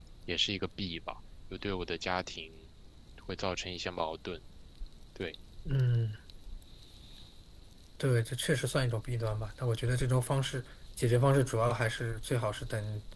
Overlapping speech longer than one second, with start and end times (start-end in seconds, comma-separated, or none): none